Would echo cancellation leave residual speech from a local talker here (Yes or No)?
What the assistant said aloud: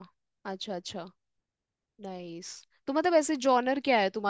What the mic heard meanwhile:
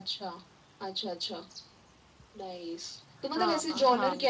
Yes